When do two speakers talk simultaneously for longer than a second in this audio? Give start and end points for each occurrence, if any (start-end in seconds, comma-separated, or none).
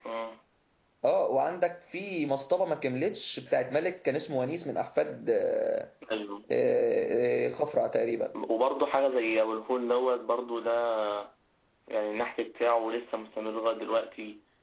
none